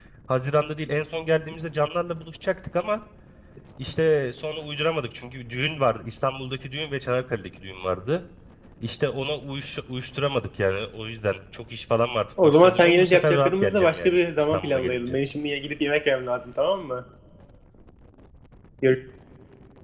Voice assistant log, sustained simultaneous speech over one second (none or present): present